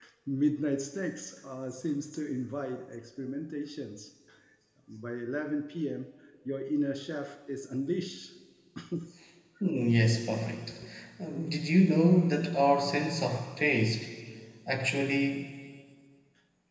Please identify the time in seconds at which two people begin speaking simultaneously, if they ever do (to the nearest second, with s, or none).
none